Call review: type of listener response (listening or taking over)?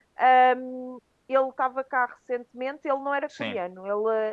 listening